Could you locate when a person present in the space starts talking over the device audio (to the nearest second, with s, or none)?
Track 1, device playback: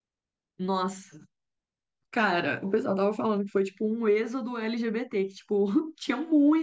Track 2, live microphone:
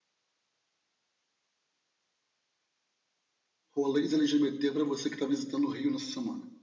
4 s